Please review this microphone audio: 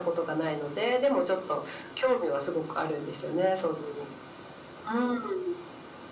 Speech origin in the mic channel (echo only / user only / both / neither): echo only